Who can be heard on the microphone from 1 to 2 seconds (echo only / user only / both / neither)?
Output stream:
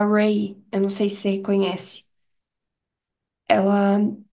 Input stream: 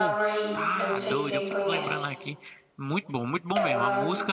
both